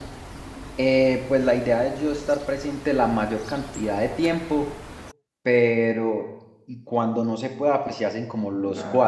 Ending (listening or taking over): listening